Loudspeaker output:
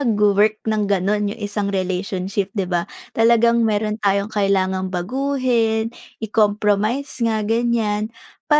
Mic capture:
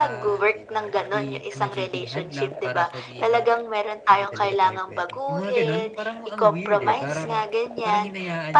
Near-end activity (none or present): present